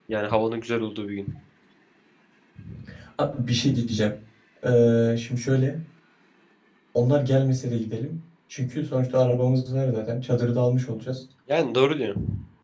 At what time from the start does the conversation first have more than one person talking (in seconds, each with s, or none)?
none